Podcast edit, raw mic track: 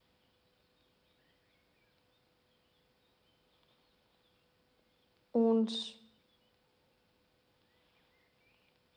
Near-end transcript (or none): Und